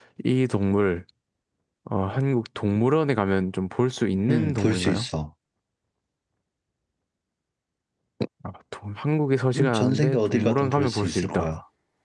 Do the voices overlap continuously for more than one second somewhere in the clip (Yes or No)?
Yes